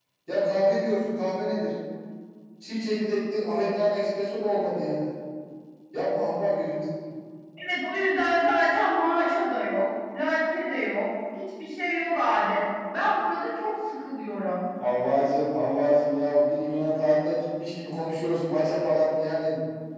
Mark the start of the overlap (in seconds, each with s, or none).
none